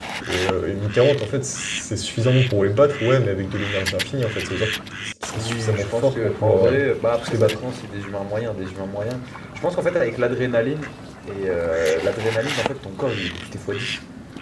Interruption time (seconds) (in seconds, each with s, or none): 5.3 s